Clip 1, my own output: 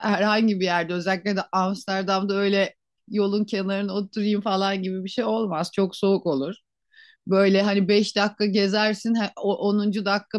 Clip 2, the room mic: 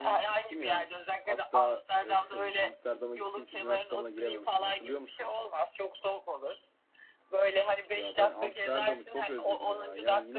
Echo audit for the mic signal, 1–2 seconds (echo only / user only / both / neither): both